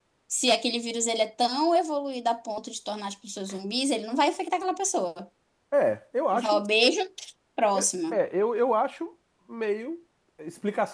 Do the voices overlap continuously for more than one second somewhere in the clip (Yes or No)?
No